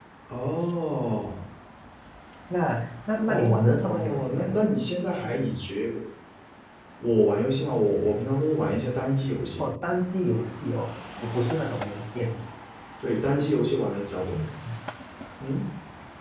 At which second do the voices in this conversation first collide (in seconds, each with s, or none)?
3.2 s